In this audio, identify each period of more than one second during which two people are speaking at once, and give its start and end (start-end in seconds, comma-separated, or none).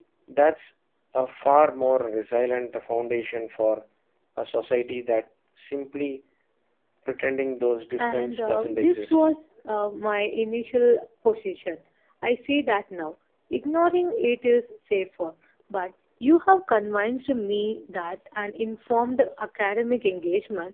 8.0-9.3